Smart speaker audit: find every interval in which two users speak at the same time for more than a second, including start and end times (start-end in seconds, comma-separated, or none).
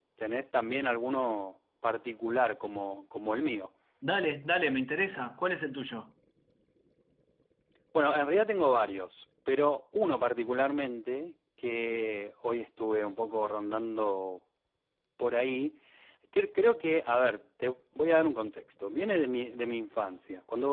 none